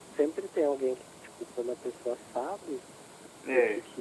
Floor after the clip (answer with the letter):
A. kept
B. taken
A